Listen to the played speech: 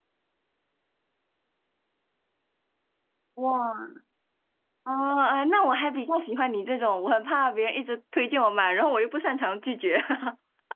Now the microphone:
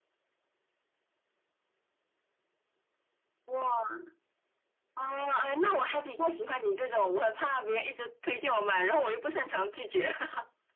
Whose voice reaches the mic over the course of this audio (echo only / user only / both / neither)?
echo only